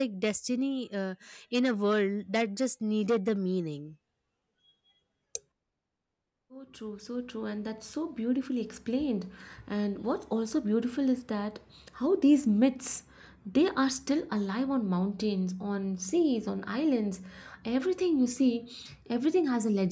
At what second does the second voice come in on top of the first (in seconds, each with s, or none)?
none